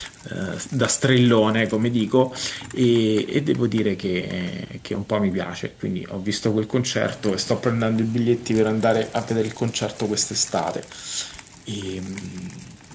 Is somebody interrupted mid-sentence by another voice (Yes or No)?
No